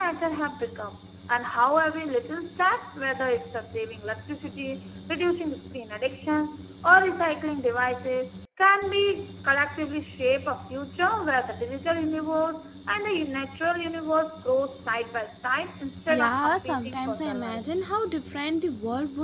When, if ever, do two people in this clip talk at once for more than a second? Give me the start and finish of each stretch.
16.1-17.6

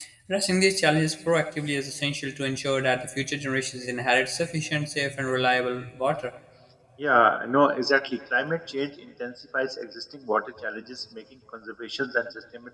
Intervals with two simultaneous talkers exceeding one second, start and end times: none

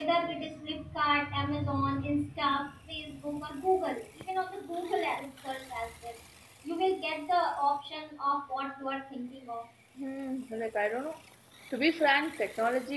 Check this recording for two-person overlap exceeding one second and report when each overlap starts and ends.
none

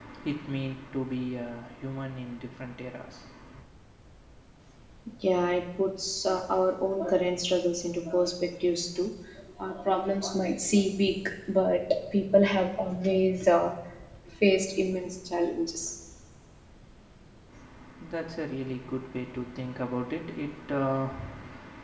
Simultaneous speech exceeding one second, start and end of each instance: none

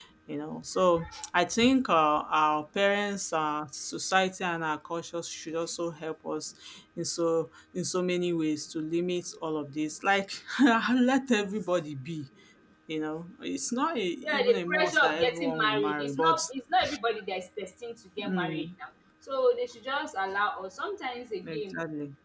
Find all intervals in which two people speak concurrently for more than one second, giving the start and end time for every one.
14.2-16.4

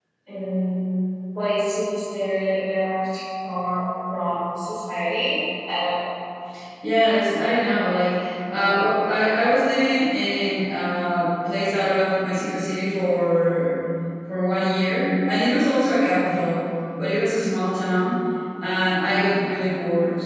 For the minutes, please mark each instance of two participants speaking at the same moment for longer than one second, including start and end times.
none

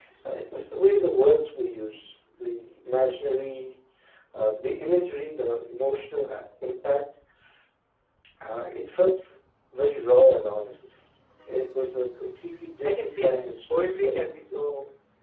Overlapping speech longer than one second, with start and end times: 12.8-14.2

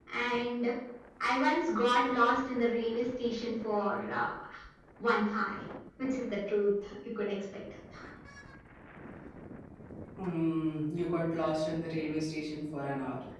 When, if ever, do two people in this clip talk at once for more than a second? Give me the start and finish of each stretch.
none

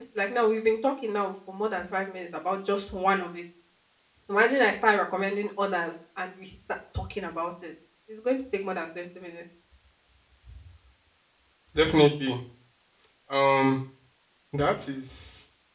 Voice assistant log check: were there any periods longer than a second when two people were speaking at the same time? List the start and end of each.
none

